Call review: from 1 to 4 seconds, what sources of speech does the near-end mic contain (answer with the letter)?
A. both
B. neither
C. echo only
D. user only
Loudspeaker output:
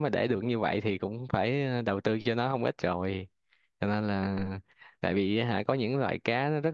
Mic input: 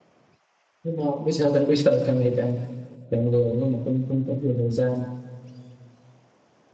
D